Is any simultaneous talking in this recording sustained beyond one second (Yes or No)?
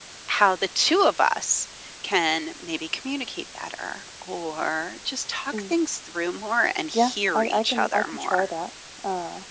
Yes